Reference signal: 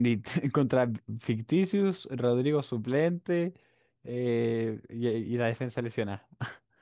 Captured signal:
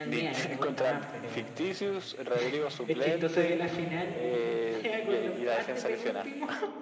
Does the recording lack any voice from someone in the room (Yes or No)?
No